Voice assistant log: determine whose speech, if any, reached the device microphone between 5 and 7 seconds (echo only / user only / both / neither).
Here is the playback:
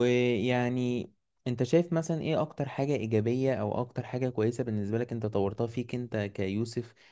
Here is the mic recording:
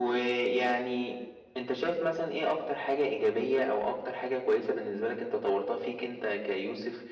echo only